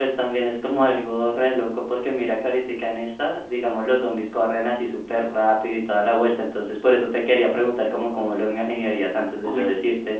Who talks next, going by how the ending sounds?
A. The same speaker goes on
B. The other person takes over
A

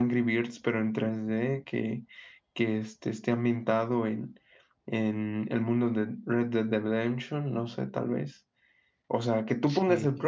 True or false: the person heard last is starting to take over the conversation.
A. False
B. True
A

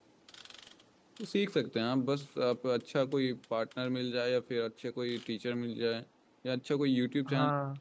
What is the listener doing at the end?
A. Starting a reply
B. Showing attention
B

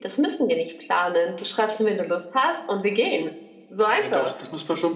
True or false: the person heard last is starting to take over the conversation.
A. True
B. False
A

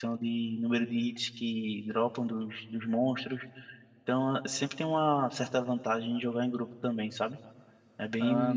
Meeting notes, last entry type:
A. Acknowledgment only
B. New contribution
B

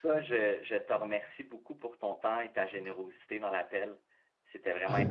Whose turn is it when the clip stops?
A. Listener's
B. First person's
A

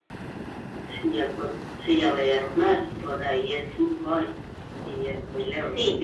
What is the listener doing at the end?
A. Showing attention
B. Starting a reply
B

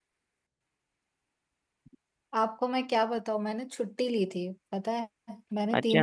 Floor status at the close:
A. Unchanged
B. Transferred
A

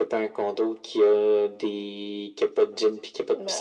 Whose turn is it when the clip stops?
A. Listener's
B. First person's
A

